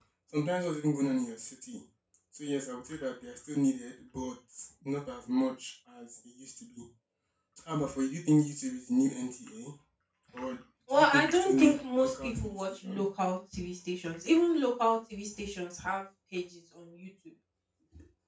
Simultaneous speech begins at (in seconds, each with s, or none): 10.9 s